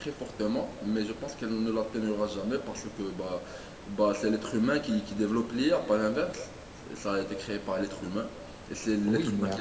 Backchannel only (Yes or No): No